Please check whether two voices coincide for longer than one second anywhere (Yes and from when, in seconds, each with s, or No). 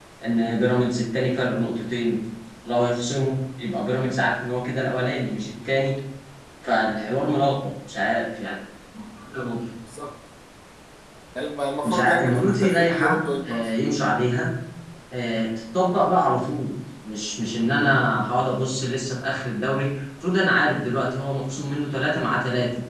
Yes, from 11.8 s